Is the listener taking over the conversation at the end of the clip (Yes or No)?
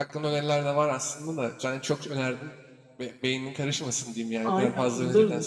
Yes